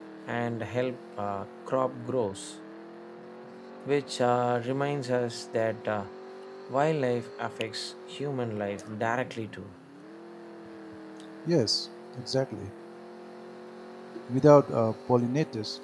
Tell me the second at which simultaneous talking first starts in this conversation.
none

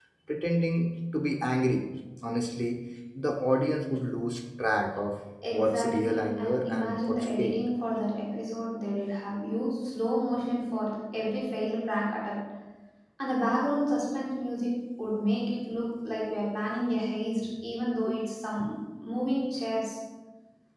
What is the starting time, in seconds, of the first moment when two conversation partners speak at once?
5 s

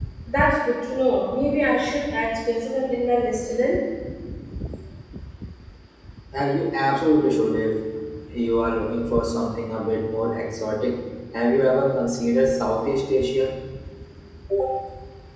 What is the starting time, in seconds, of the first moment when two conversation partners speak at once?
none

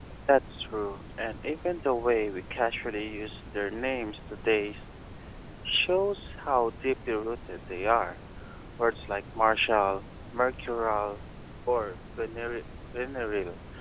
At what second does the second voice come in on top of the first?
none

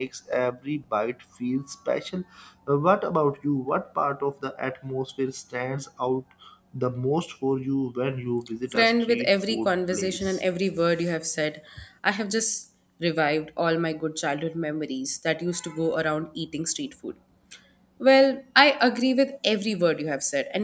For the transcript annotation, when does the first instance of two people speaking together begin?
9 s

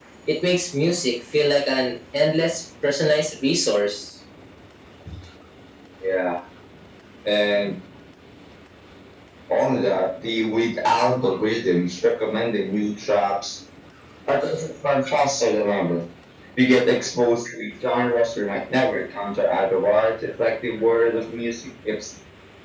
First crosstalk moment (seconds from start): none

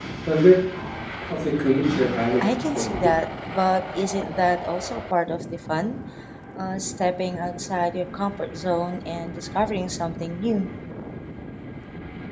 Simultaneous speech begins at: 2 s

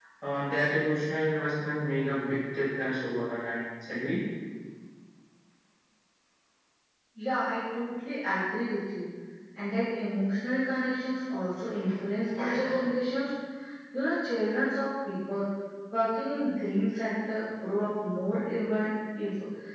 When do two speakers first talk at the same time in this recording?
none

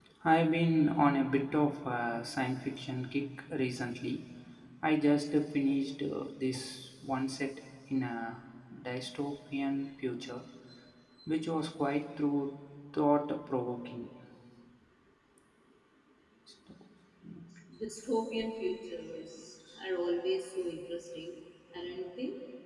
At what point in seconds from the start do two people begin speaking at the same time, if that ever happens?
none

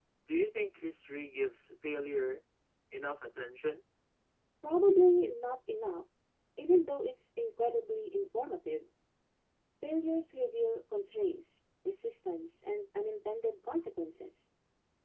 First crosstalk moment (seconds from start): none

